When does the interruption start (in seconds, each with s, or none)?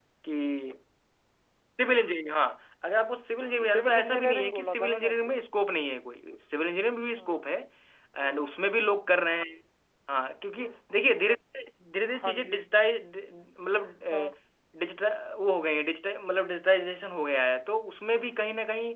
3.7 s